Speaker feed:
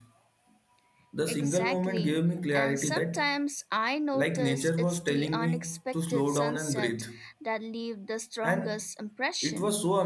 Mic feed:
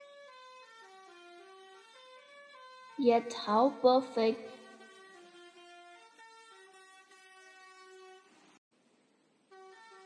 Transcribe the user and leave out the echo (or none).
yet how perfect